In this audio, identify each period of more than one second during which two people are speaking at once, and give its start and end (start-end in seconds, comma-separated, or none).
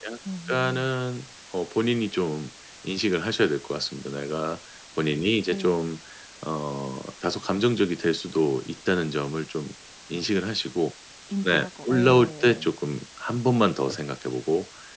11.4-12.7